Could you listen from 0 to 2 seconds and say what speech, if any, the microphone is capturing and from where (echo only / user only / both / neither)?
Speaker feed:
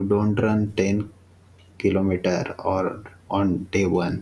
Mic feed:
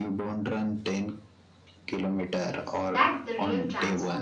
echo only